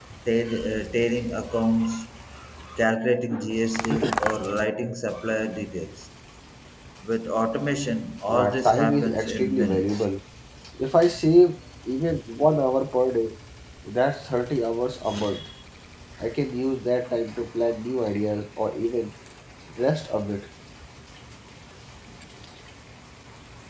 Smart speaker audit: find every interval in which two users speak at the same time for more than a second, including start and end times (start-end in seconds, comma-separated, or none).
8.3-10.1